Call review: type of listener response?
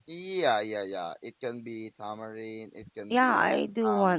taking over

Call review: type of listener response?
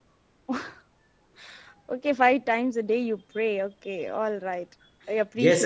taking over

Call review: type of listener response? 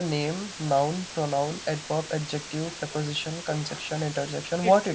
taking over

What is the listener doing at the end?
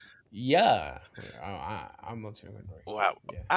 taking over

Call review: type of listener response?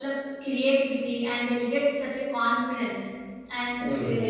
listening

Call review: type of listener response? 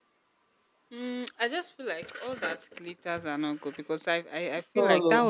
listening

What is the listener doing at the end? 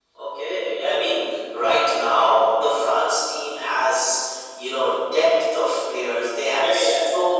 listening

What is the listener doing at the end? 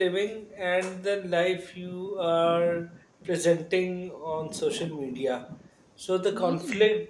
listening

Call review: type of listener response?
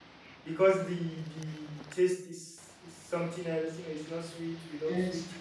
listening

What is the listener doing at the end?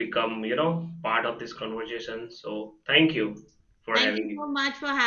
taking over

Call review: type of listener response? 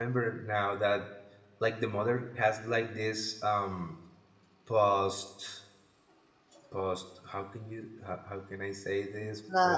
taking over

